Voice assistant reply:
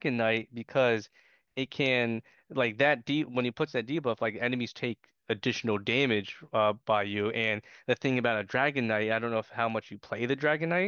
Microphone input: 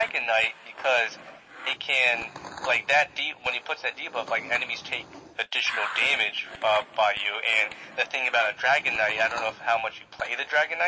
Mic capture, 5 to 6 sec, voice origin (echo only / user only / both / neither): echo only